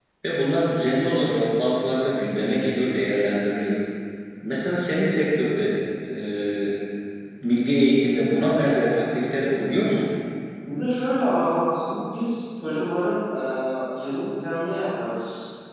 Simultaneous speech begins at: none

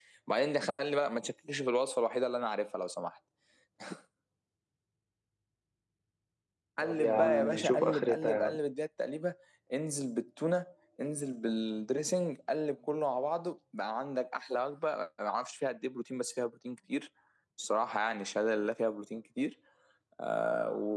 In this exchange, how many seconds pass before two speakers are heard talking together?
6.8 s

